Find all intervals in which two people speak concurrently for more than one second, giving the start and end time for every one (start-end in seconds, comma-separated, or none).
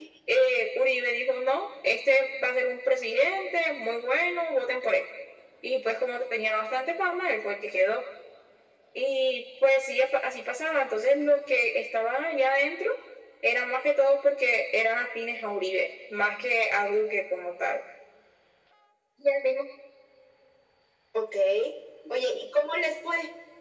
none